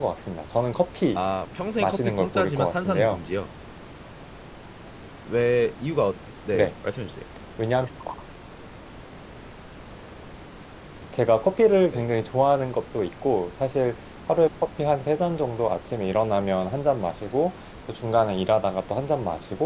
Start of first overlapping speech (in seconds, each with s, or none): 1.8 s